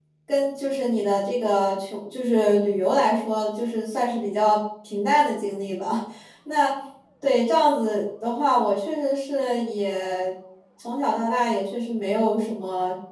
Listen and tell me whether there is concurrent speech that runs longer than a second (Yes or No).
No